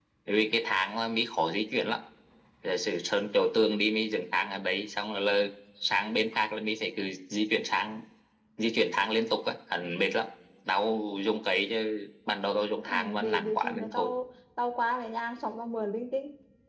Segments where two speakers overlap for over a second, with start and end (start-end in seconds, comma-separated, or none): 12.8-14.1